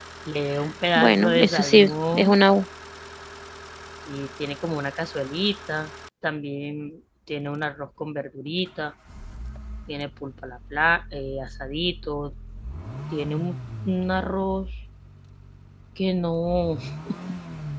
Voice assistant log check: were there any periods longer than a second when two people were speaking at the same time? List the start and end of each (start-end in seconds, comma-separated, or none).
0.9-2.3